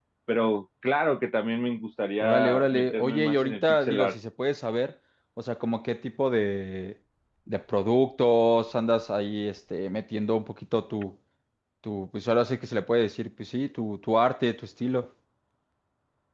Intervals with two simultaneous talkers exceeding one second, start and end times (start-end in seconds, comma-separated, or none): 2.2-4.2